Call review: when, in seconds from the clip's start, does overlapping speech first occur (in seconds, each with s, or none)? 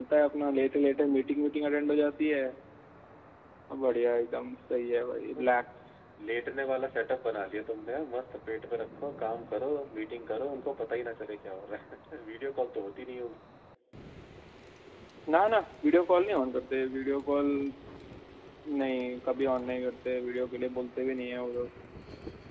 none